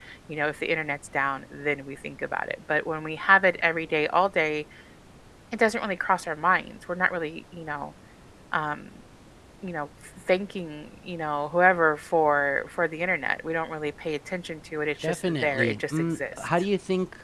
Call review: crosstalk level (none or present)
present